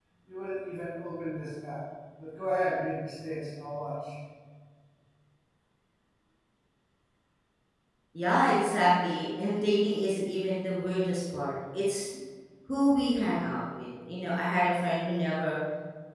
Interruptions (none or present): none